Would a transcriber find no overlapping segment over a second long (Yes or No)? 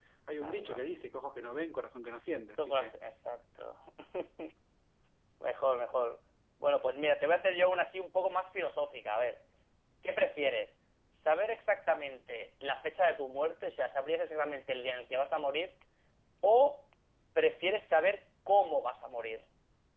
Yes